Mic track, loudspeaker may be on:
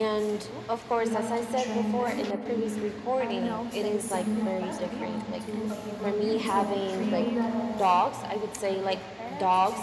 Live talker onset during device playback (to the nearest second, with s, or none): 1 s